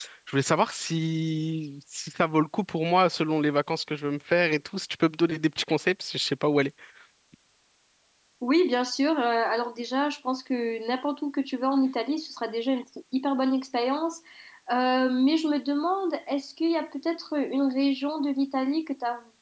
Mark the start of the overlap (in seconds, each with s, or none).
none